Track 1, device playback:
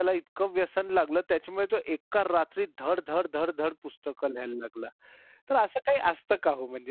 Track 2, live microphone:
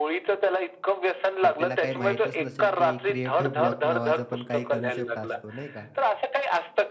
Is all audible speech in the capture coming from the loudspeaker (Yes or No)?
No